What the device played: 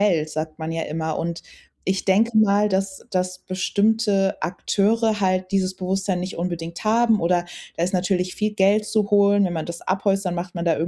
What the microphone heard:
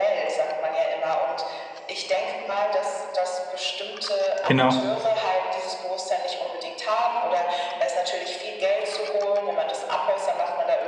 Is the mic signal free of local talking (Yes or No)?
No